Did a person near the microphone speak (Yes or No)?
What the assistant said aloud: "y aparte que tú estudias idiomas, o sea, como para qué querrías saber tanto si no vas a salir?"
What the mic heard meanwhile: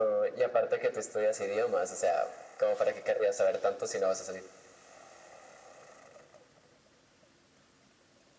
No